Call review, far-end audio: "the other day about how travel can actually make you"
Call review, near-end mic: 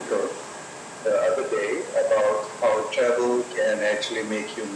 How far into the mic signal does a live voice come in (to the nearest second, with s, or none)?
none